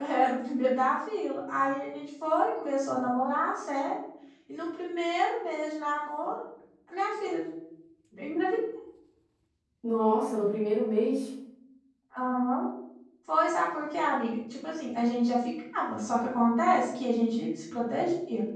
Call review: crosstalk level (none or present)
none